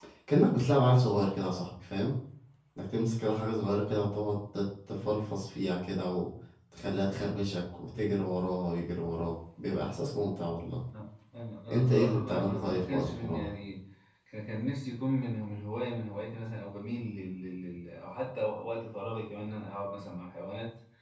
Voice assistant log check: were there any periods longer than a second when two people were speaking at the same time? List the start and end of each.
11.7-13.5

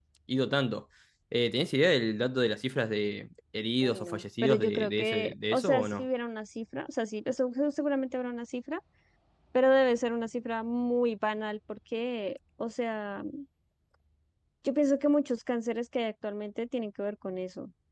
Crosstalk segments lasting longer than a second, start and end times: 4.4-6.0

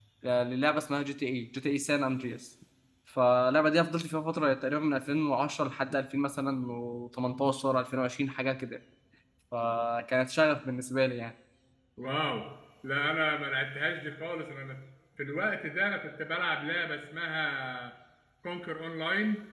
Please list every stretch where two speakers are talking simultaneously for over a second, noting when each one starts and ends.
none

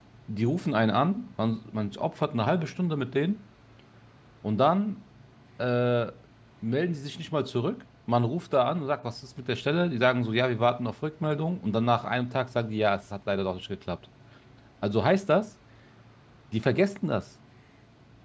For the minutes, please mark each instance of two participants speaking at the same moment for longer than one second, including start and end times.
none

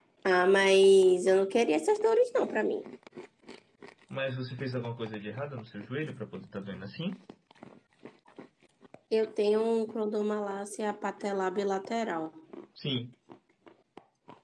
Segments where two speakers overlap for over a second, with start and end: none

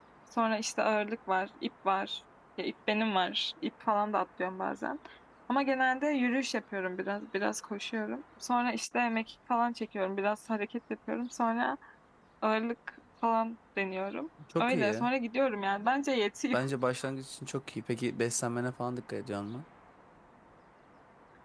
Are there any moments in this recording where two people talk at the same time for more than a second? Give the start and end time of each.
none

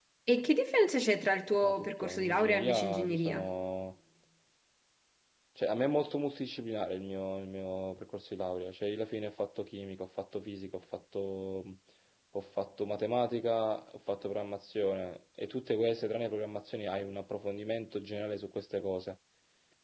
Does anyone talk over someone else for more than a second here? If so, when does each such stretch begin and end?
1.6-3.5

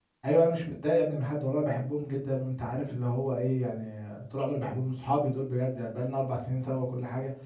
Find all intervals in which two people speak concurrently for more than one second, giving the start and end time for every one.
none

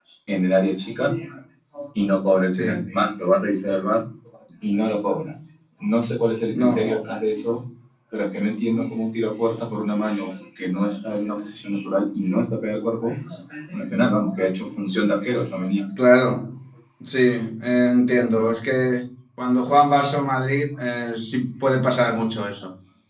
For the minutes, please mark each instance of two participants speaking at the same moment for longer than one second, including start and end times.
none

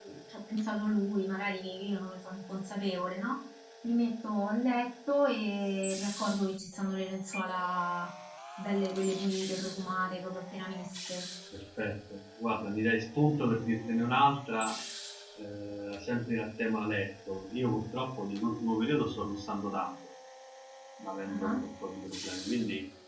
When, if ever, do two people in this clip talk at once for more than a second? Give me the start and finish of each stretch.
none

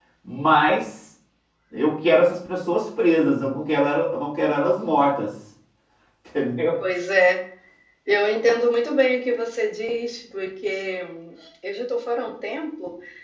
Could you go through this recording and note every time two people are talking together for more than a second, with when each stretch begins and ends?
none

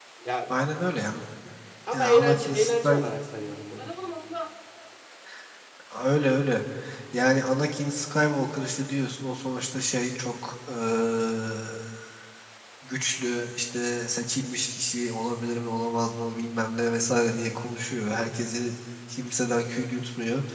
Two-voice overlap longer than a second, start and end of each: 1.9-3.1

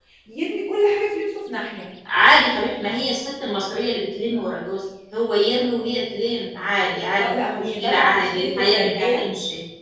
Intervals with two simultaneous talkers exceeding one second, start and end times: 7.2-9.2

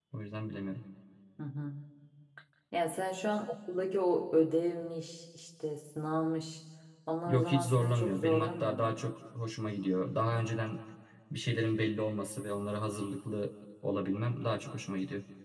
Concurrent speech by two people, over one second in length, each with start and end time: 7.3-9.0

